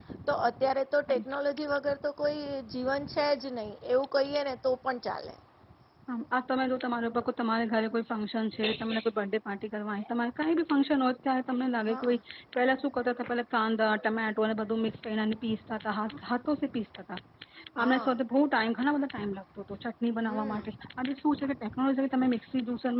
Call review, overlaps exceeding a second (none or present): none